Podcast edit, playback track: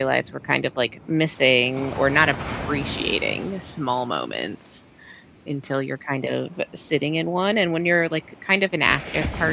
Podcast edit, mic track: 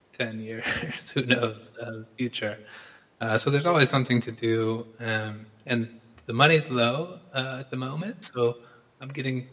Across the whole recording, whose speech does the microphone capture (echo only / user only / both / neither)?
user only